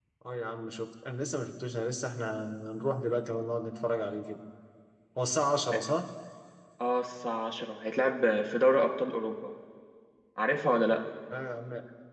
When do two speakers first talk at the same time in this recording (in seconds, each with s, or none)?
none